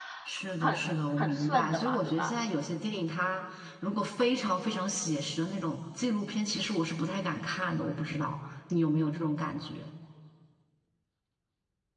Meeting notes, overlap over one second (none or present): present